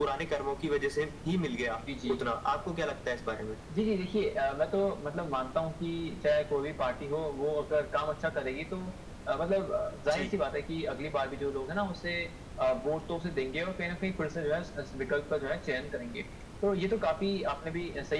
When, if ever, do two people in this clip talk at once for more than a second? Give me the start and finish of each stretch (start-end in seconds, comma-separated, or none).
none